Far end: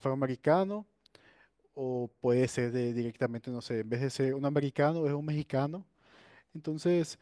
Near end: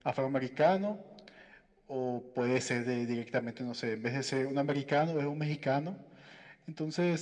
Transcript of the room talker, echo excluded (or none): none